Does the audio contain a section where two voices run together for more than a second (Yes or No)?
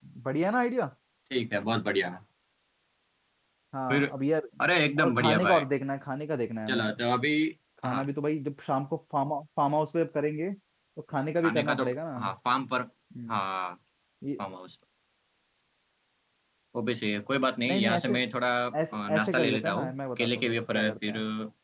Yes